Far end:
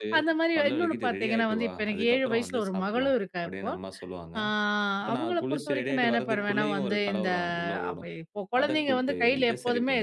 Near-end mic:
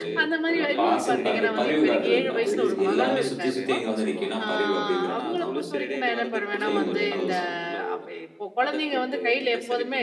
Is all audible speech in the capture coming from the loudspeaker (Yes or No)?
No